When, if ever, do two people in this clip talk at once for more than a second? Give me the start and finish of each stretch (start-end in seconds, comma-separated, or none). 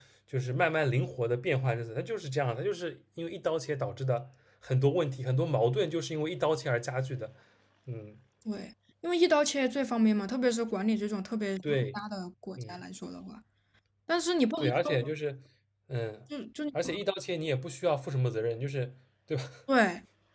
none